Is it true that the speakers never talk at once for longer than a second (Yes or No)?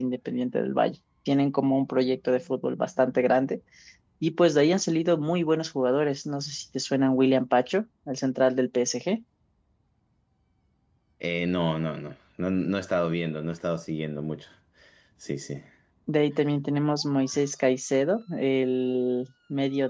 Yes